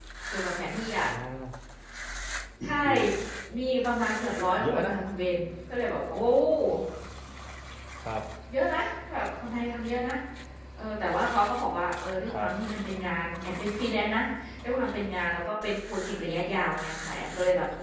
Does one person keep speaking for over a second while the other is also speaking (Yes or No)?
No